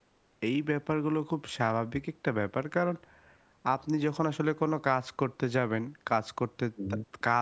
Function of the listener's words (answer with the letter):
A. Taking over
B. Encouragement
B